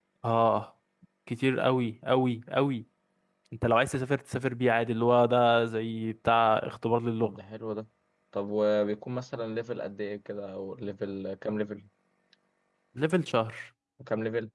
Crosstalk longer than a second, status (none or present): none